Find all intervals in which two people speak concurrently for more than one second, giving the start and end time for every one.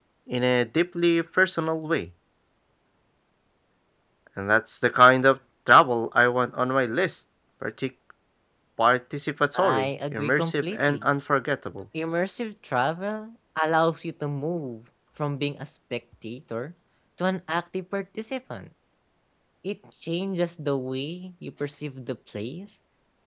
9.6-11.1

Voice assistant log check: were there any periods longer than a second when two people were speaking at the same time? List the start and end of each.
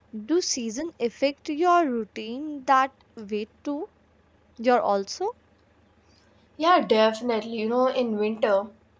none

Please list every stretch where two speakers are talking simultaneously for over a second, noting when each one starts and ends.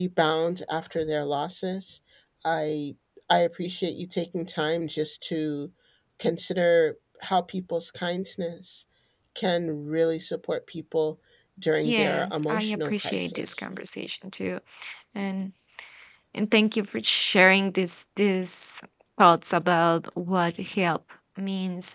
11.8-13.6

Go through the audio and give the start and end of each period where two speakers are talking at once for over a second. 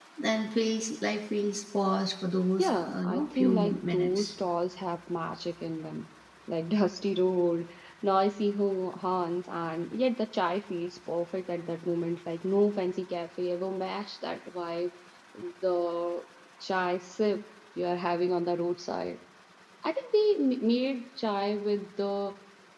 2.6-4.3

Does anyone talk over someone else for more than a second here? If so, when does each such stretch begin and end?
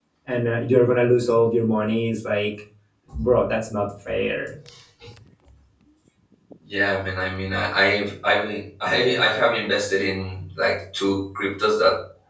none

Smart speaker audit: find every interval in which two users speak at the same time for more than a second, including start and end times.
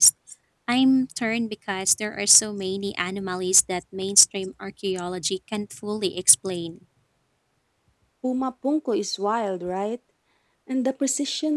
none

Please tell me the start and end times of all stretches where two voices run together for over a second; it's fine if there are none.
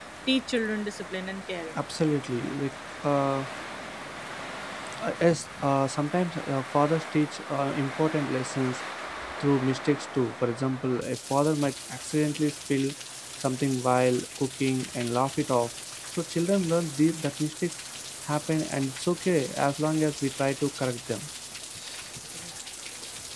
none

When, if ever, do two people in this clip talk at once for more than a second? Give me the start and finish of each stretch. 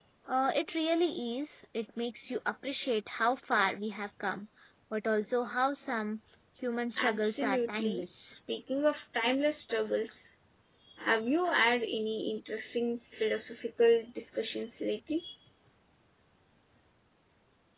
7.0-8.3

